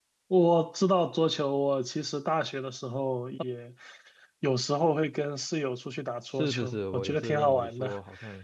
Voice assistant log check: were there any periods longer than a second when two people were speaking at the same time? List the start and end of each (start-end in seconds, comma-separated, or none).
6.3-7.9